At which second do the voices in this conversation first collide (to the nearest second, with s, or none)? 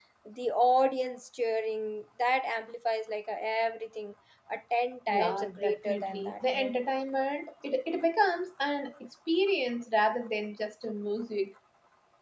5 s